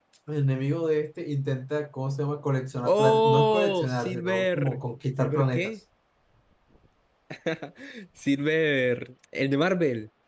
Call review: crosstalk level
present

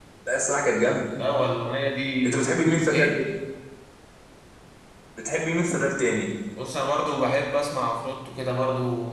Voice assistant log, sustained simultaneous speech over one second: none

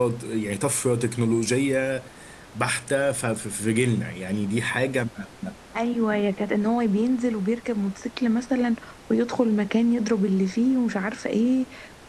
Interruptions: none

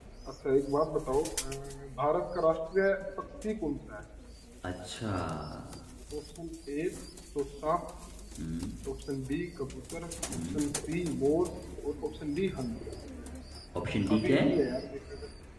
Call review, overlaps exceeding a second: none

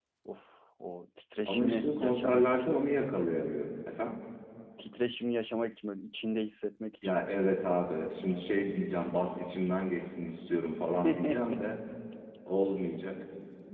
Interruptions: present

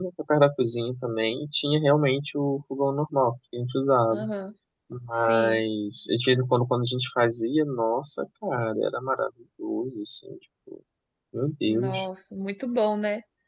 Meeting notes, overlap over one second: none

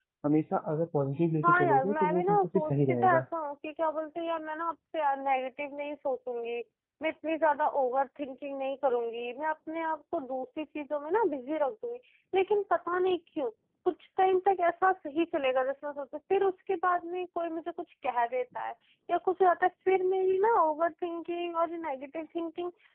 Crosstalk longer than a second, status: present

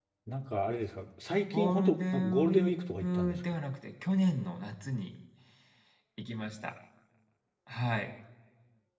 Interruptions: present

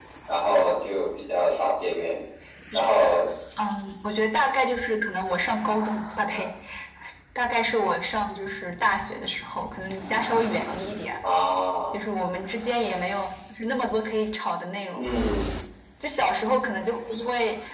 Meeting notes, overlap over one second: none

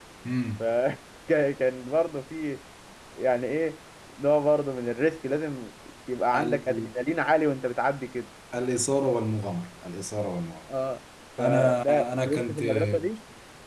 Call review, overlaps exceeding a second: present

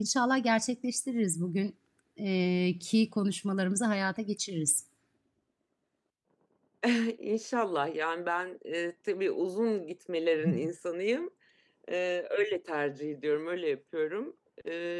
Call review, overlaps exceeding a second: none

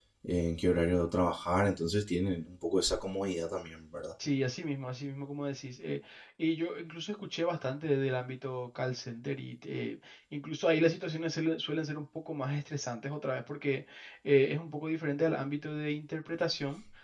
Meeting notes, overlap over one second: none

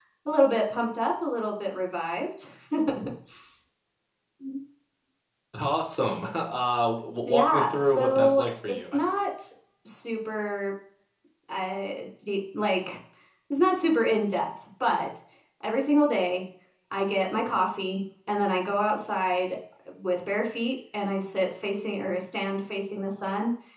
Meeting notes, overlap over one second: present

